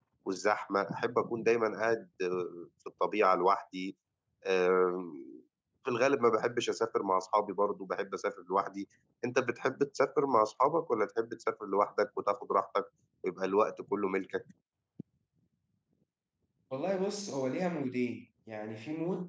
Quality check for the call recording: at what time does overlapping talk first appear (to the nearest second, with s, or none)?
none